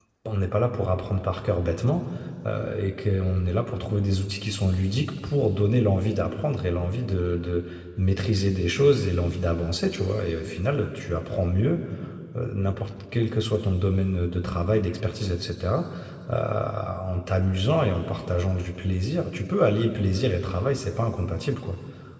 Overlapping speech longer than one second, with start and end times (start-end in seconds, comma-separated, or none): none